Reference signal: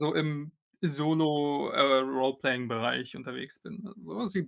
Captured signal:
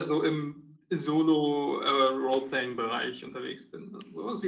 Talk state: echo only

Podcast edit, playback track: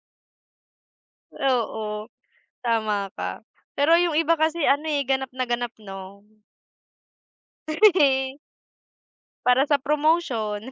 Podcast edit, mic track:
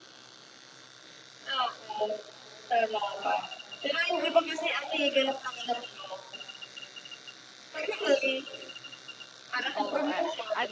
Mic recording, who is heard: both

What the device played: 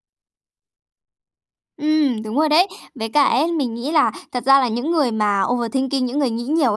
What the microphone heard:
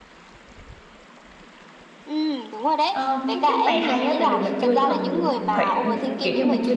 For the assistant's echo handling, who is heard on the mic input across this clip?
both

